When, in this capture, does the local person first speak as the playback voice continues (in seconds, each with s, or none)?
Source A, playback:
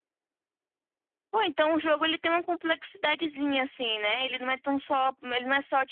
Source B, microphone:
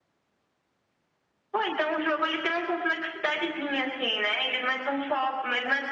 none